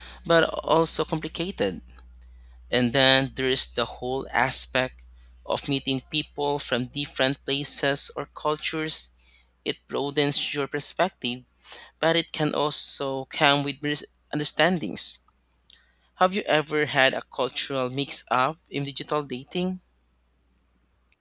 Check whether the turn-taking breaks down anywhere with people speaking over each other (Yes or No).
No